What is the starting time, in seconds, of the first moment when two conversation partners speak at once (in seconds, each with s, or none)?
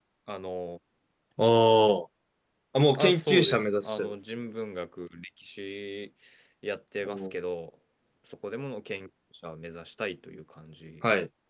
3.0 s